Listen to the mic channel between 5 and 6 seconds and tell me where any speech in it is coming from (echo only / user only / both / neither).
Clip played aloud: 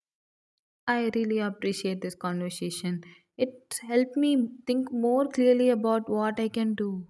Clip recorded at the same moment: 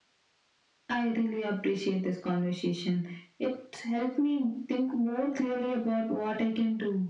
echo only